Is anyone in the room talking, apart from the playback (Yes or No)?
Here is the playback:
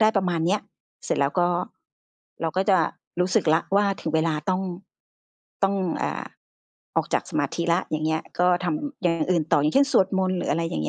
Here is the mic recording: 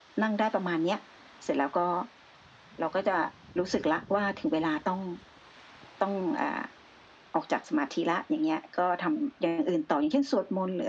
No